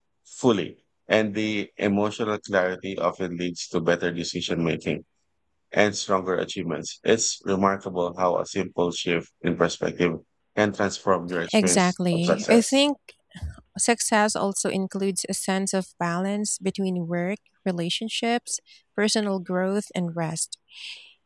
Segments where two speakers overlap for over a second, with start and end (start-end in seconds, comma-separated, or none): 11.5-12.8